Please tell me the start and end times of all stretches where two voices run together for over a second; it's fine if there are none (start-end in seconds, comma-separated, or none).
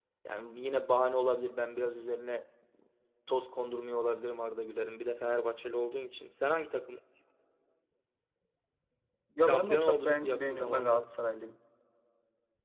9.4-11.0